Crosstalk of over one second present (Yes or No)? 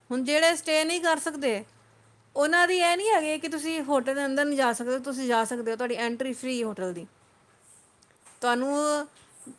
No